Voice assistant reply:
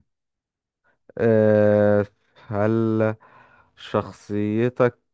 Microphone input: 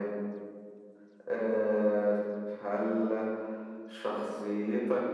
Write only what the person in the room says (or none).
none